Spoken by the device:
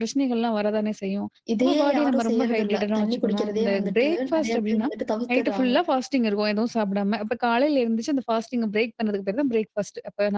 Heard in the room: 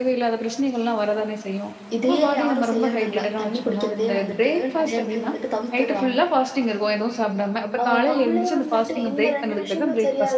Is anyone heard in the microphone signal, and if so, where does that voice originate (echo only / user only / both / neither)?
both